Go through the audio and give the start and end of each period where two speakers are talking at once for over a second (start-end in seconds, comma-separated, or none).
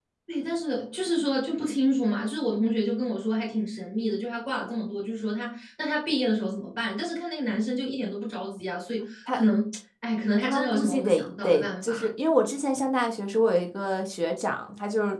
10.4-12.1